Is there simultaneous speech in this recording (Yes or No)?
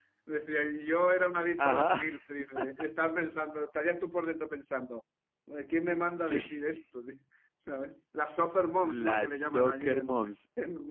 Yes